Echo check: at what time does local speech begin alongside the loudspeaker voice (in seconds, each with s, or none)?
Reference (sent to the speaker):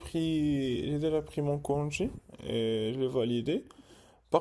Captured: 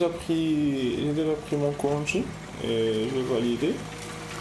none